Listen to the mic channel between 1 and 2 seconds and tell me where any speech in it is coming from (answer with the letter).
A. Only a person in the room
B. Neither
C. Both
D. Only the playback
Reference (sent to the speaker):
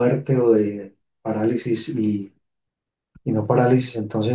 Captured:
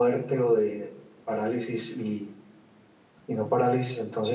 D